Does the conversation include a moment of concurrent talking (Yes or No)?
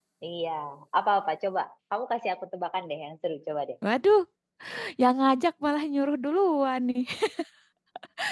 No